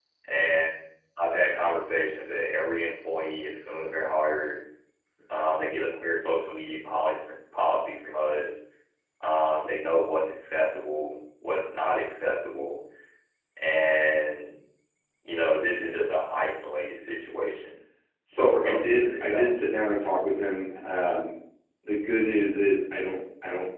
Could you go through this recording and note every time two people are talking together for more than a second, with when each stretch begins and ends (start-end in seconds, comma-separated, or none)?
18.3-19.5